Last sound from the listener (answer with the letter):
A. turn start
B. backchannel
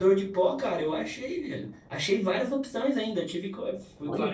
B